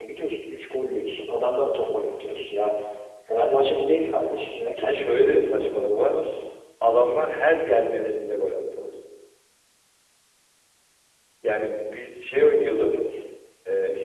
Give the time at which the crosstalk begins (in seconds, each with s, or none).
4.8 s